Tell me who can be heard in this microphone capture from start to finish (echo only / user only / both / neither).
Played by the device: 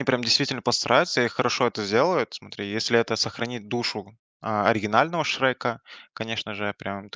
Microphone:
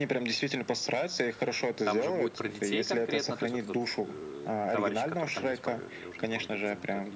both